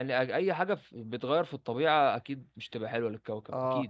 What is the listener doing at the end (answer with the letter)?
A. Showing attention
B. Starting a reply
B